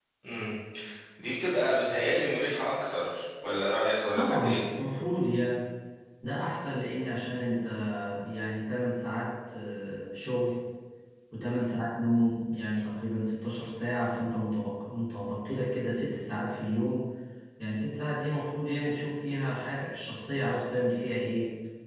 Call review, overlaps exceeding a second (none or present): none